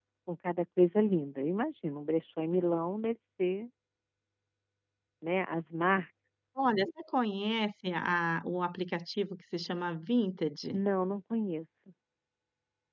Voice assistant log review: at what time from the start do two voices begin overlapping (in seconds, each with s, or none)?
none